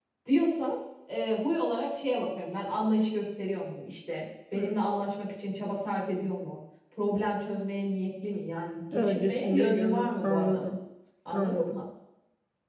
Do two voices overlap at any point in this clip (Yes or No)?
Yes